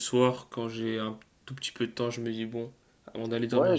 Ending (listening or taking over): taking over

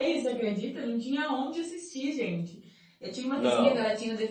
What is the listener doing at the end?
listening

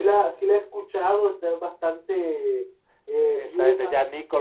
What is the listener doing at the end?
taking over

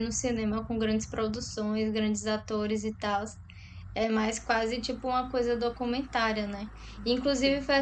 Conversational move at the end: listening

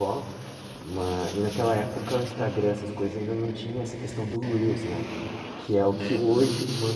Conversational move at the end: listening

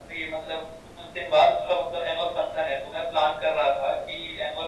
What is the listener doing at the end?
listening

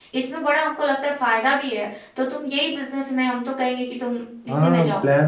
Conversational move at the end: taking over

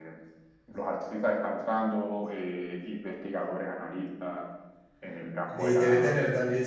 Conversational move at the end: taking over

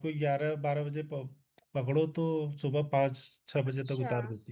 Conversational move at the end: listening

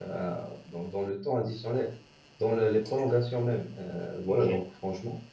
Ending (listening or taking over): listening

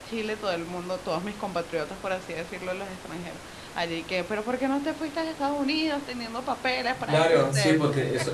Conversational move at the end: taking over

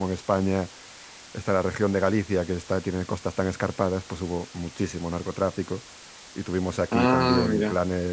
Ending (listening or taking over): listening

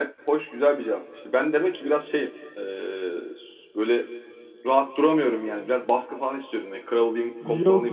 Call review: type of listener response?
taking over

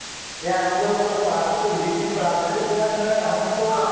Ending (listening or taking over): listening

